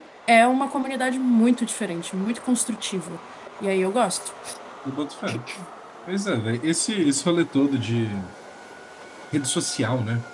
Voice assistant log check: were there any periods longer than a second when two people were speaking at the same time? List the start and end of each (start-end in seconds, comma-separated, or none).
none